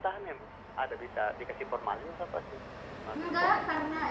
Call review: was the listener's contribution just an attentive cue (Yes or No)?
No